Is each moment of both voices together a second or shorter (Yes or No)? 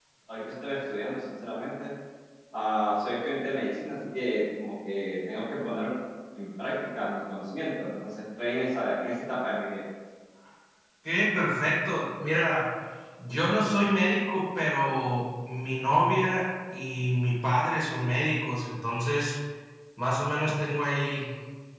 Yes